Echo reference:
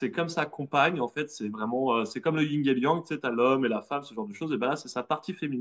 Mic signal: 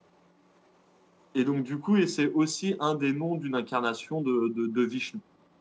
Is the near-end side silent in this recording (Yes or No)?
No